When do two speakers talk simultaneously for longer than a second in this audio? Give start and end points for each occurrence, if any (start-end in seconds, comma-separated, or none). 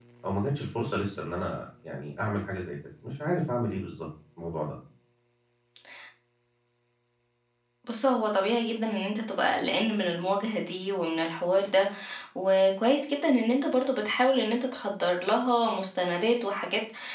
none